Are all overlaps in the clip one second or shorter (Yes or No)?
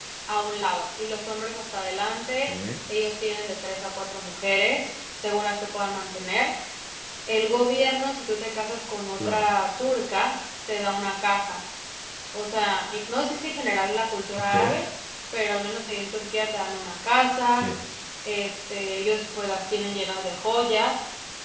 Yes